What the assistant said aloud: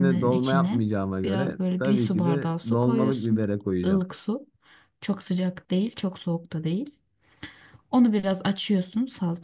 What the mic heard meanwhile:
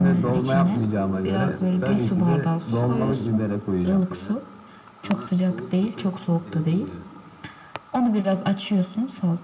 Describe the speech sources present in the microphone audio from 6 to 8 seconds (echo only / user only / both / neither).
both